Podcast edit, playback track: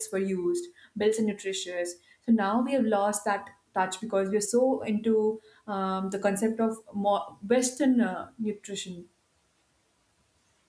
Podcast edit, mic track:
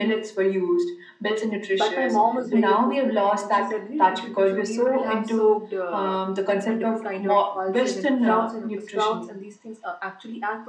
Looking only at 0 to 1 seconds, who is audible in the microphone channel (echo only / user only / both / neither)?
echo only